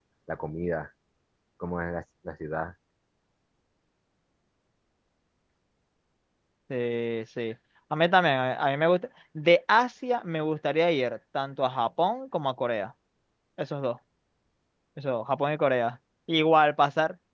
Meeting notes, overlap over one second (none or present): none